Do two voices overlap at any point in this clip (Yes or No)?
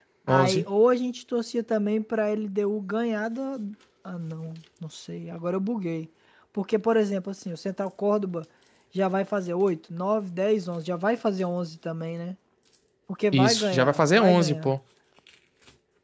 Yes